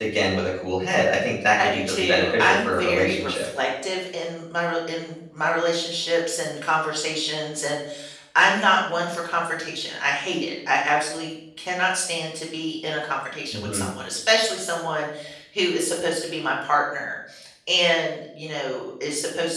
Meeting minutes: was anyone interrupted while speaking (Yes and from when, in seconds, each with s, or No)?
Yes, from 1.6 s